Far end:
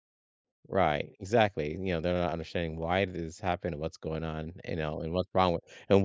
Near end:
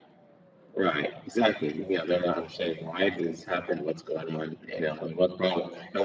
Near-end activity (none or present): none